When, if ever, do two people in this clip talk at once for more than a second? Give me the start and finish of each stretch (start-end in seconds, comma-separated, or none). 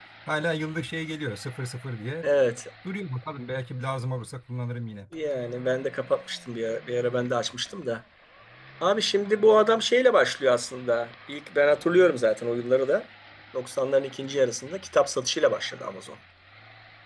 none